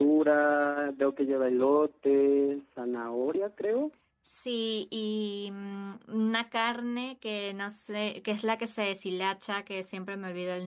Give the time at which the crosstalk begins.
none

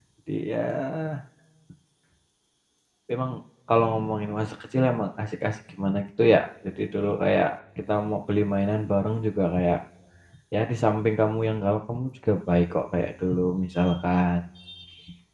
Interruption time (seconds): none

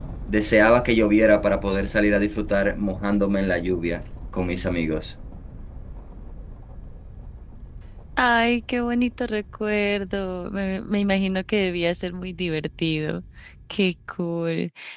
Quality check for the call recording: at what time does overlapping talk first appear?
none

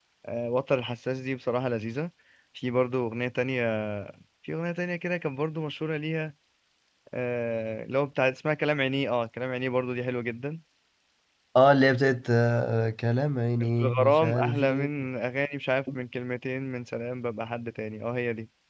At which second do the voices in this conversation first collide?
13.6 s

